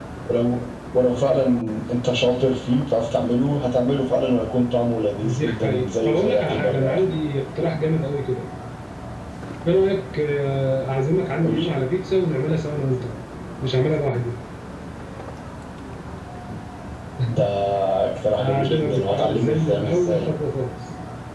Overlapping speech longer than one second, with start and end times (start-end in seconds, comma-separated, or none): 5.2-7.1, 18.4-20.3